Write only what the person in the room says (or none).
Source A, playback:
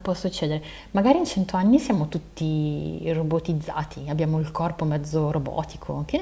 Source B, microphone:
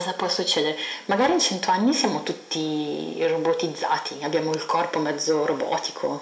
none